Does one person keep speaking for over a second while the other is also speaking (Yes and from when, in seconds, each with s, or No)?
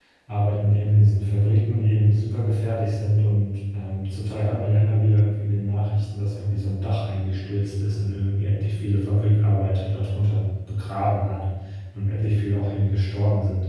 No